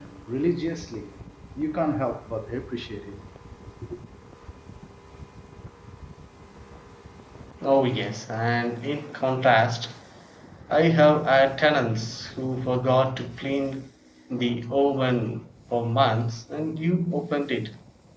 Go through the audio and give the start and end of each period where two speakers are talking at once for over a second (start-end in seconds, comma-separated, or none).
none